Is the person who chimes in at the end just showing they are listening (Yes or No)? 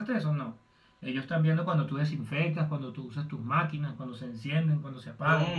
No